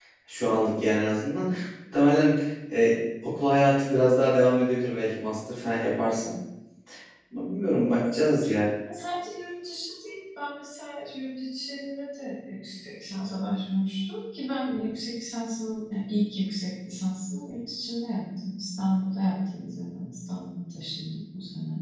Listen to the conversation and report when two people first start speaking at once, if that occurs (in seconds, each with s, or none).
none